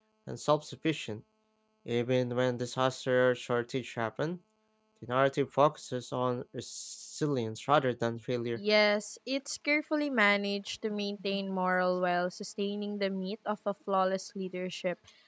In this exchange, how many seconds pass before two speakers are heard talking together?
none

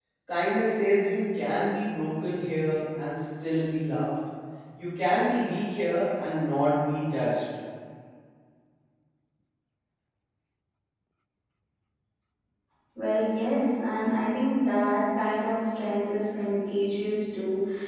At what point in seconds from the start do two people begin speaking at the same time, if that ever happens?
none

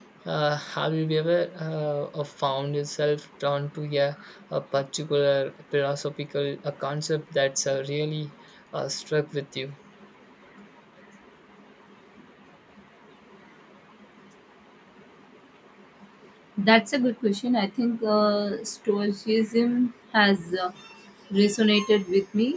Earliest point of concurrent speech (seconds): none

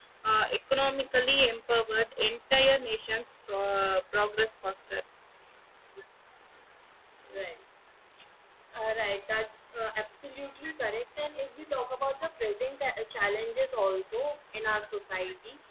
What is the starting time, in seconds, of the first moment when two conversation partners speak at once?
none

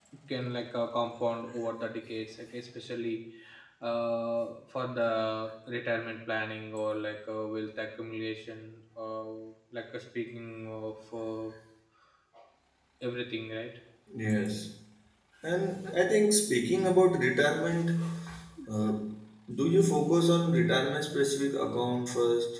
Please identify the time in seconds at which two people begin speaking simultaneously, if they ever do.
none

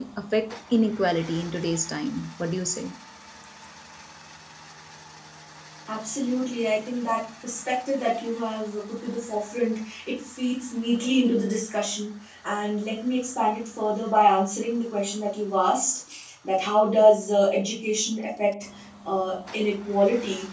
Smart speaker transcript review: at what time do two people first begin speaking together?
none

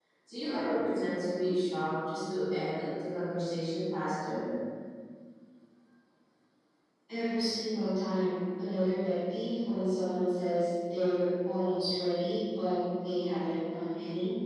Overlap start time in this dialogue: none

